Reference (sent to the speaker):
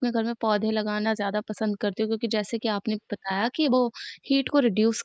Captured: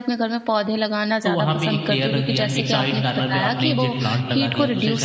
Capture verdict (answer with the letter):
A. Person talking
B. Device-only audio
A